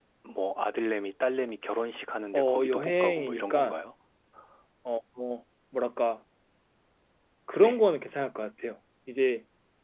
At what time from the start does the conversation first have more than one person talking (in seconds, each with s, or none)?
2.3 s